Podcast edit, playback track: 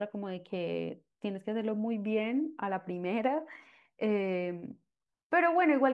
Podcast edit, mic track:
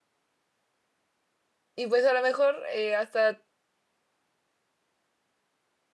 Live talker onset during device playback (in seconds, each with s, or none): 1.8 s